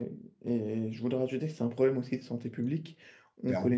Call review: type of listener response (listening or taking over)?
listening